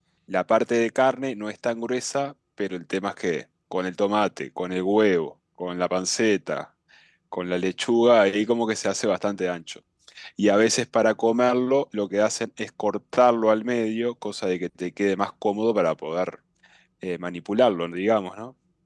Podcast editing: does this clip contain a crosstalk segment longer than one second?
No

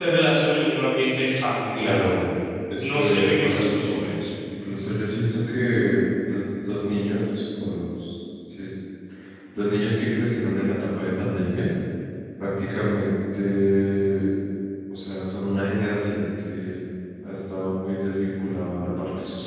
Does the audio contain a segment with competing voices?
Yes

